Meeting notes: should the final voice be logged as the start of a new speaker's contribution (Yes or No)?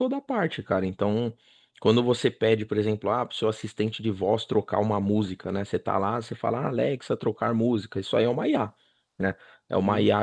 No